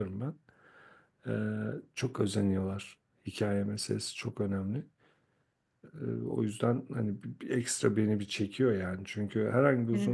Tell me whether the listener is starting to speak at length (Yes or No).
No